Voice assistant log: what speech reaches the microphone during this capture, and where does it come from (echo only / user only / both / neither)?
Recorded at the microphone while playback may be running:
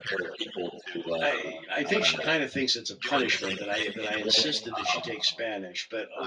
both